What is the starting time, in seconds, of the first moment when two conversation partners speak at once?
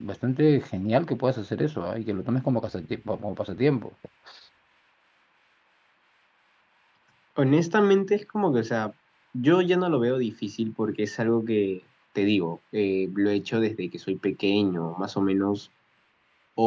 none

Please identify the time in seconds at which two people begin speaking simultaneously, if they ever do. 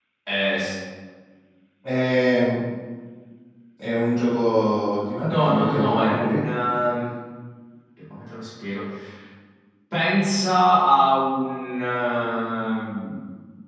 5.2 s

